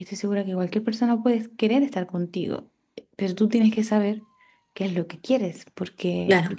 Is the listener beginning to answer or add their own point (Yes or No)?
No